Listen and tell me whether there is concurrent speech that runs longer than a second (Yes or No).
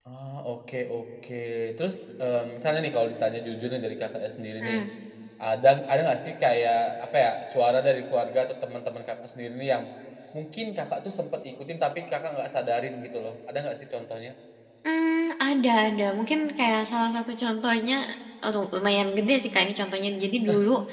No